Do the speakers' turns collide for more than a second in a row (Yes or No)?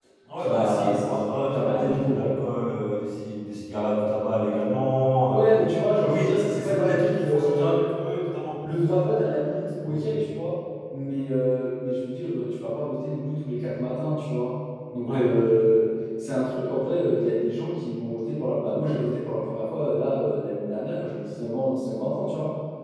Yes